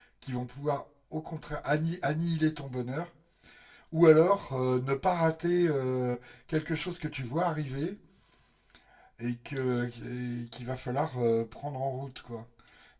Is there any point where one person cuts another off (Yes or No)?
No